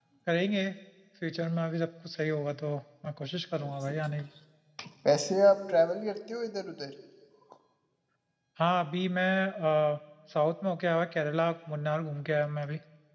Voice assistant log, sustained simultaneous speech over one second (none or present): none